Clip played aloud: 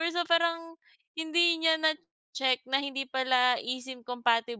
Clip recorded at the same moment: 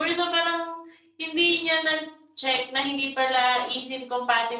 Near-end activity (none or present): none